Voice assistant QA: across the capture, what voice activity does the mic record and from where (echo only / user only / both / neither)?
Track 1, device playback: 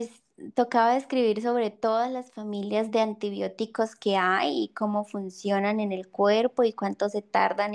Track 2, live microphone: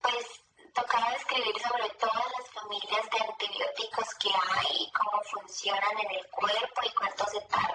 echo only